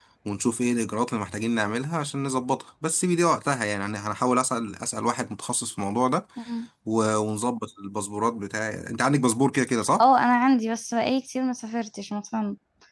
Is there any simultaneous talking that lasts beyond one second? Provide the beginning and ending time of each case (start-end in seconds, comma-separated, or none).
none